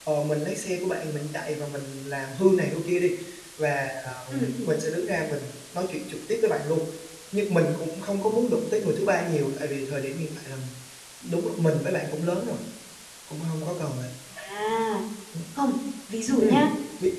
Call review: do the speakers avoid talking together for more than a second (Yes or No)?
Yes